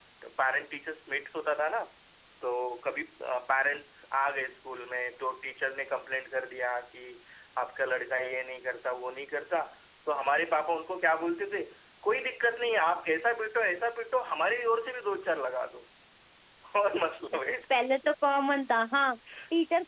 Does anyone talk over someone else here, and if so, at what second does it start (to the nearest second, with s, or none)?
none